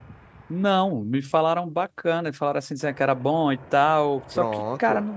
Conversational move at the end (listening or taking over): listening